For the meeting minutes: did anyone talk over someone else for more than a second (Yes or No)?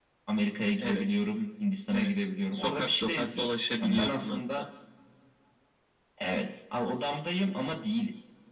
Yes